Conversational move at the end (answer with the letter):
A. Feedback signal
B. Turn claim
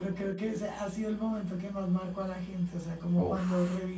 A